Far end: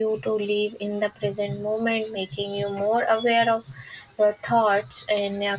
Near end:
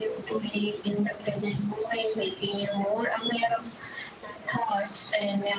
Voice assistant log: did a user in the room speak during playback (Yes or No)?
No